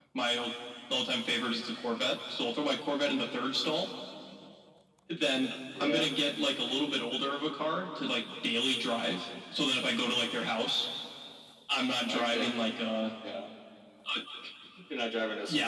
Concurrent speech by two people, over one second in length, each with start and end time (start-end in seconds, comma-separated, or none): none